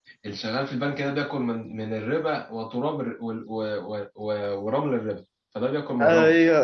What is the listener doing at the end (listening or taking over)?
taking over